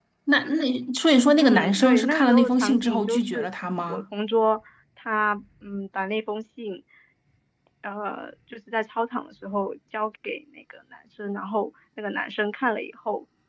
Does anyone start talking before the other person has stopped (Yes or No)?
Yes